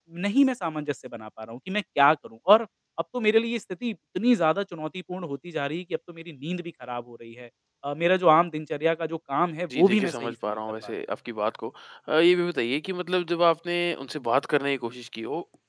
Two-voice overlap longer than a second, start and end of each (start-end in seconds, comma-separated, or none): 9.7-10.9